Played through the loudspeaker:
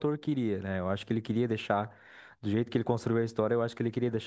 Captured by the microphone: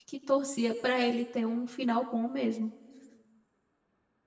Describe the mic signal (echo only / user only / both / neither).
user only